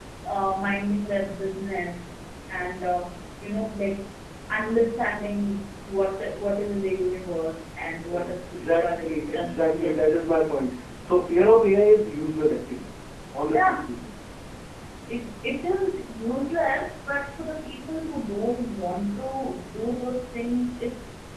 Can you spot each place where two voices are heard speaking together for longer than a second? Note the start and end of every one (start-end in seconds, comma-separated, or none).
8.1-9.9